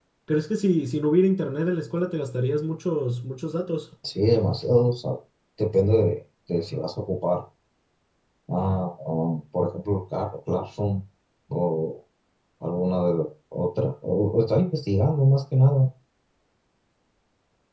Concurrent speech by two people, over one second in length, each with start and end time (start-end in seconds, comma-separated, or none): none